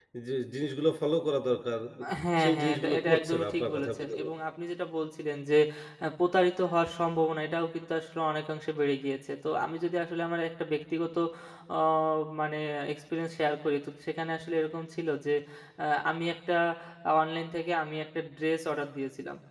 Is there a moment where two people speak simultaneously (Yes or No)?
Yes